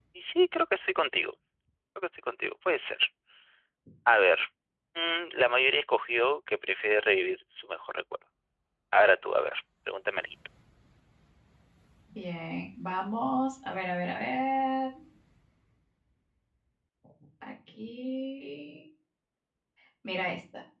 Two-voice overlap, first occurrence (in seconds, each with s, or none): none